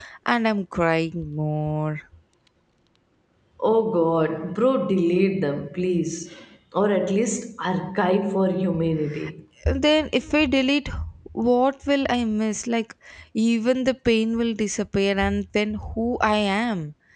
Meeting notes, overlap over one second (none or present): none